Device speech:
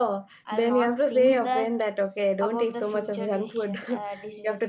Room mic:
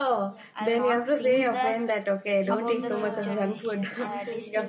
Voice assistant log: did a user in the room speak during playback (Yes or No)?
Yes